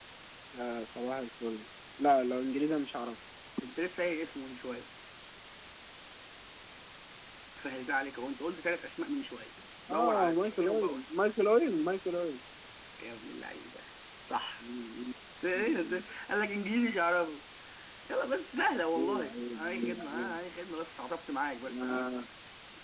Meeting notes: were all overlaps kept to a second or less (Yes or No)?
No